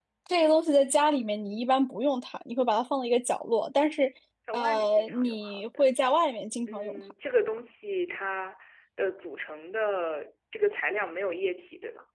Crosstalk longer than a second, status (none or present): present